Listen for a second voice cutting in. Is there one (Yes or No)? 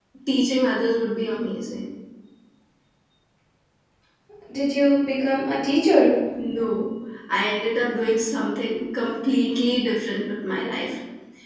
No